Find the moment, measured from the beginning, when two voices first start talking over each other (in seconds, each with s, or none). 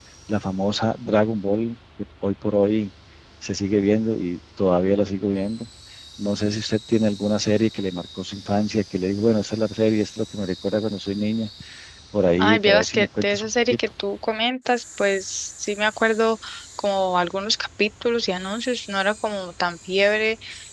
12.4 s